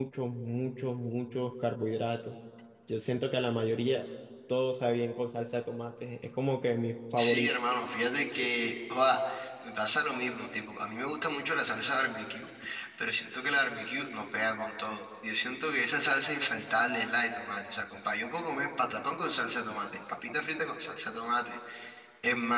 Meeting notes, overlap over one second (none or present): none